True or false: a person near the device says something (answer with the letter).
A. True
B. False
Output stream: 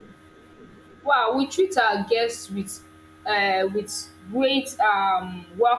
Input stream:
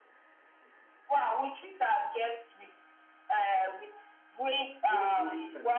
A